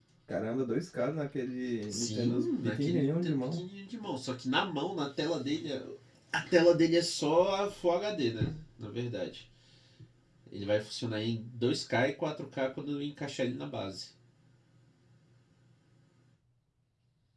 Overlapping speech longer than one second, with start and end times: 1.9-3.6

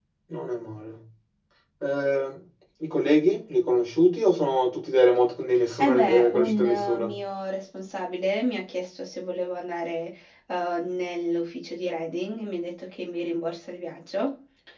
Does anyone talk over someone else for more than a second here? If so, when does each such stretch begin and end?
5.8-7.2

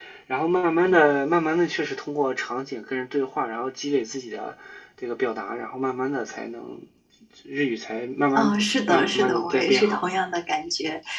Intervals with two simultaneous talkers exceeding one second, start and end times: 8.4-10.0

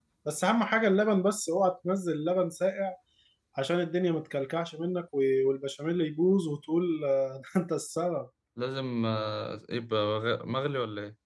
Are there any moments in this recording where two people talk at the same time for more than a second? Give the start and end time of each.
none

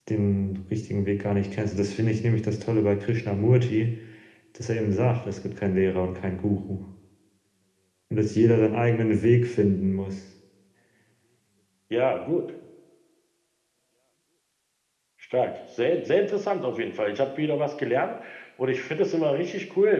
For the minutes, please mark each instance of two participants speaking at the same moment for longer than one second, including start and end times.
none

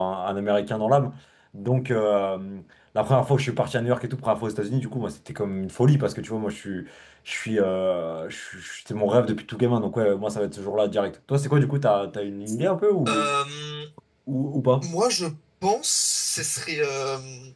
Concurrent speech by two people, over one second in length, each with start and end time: none

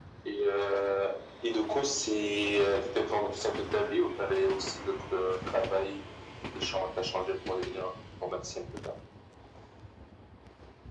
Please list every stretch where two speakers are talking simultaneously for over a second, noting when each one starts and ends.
none

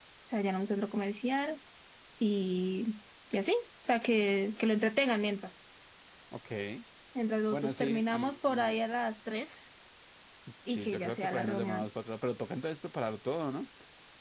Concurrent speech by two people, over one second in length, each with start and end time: 7.5-8.8, 10.7-11.9

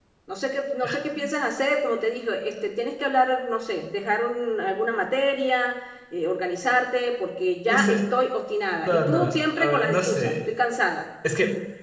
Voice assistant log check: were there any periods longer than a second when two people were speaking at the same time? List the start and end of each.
8.9-10.5

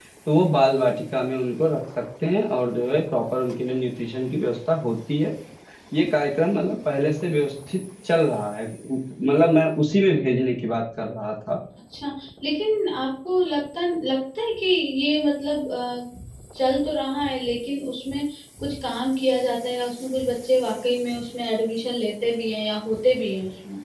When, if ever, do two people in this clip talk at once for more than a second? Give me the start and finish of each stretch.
none

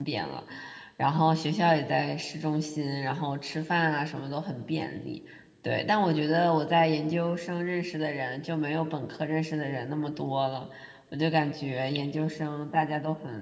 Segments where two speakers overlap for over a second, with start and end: none

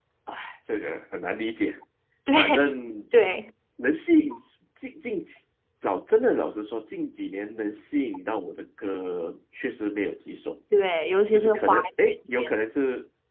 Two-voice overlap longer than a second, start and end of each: 11.3-12.5

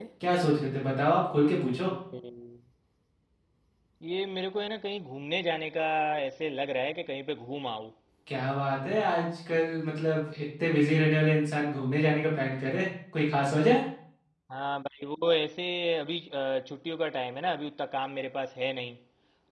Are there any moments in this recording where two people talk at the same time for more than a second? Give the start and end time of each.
none

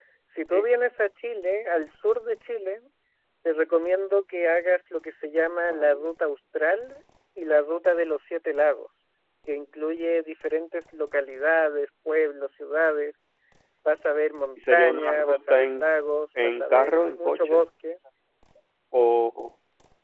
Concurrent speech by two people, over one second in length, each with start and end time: 14.6-15.8, 16.4-17.6

